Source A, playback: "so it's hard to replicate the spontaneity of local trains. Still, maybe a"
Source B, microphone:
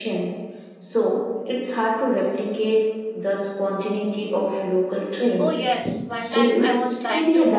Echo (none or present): present